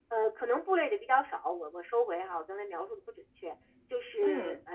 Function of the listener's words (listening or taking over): listening